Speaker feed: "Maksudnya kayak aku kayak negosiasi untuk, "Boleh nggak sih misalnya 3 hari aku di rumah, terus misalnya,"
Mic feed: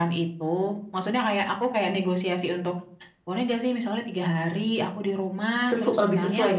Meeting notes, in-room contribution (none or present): present